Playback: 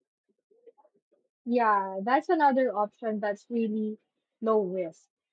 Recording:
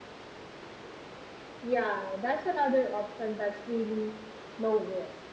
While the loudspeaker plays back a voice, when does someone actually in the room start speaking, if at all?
none

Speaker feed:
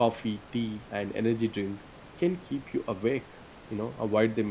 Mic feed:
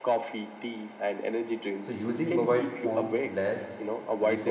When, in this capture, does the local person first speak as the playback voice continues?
1.8 s

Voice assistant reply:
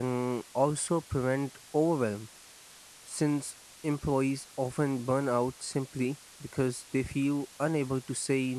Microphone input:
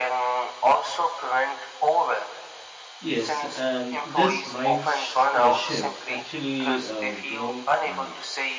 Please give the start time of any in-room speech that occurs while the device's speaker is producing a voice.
3.0 s

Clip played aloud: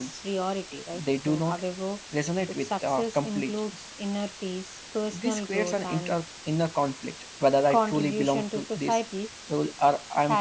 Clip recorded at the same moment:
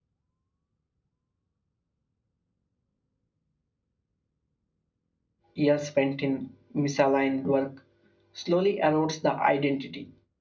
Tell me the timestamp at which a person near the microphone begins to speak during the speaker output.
5.5 s

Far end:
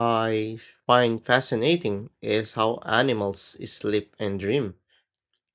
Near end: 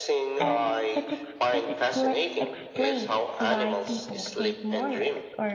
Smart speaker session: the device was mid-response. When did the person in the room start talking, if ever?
0.4 s

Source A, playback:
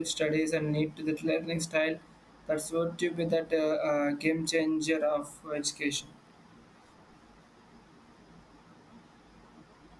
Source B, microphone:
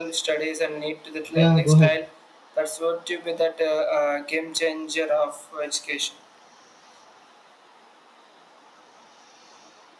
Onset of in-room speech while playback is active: 1.3 s

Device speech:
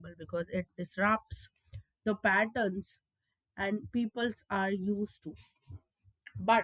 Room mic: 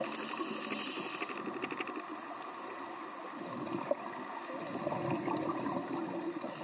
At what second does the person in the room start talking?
none

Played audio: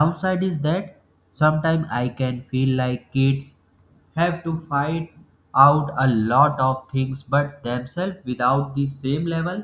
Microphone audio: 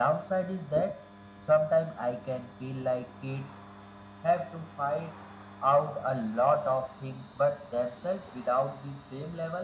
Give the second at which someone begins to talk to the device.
none

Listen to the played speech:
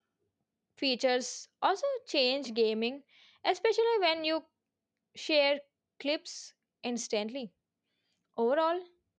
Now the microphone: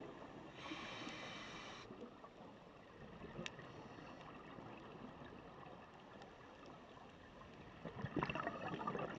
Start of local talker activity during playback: none

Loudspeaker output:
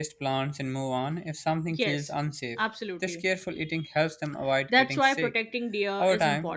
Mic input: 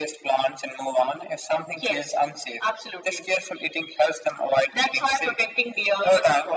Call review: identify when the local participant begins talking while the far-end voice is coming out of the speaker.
none

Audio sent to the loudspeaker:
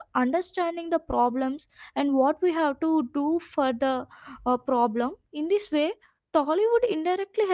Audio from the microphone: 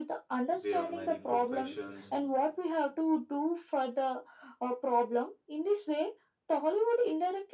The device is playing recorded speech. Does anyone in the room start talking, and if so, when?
0.5 s

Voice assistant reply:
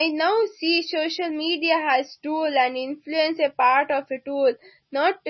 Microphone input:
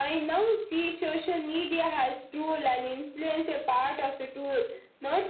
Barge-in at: none

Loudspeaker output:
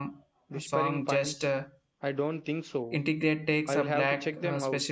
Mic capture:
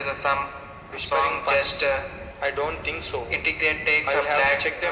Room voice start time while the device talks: none

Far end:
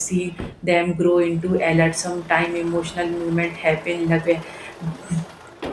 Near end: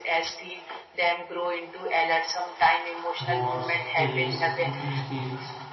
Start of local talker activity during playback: 3.2 s

